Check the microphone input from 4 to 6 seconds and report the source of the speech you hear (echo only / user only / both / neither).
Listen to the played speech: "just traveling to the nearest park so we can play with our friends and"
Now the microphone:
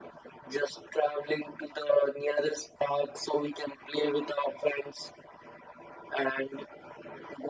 echo only